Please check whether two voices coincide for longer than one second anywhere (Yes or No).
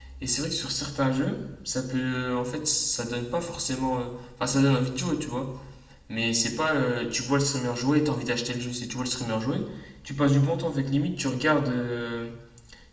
No